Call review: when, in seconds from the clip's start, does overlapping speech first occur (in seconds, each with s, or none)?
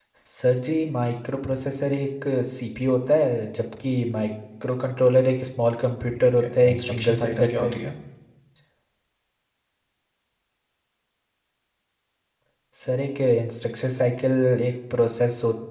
6.2 s